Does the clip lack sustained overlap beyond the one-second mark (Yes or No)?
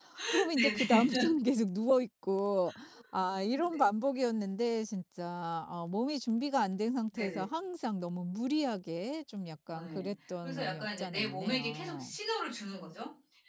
No